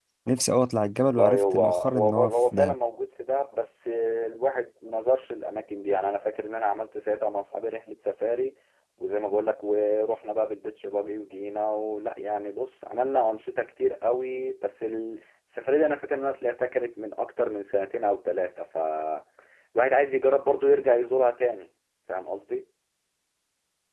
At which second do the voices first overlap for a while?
1 s

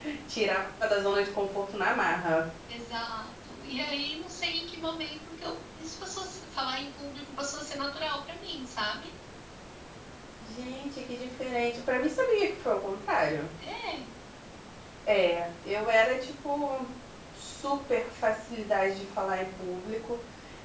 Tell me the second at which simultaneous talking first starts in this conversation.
none

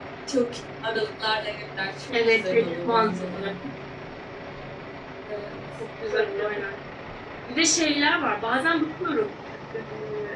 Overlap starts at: 2 s

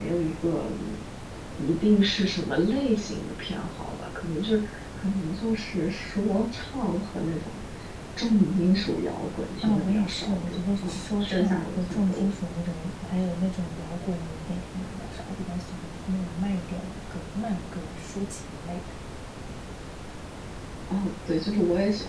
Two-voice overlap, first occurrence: 10 s

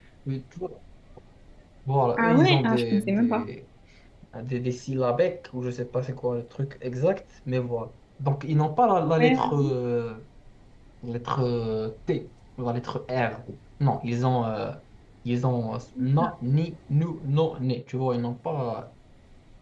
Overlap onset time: 2 s

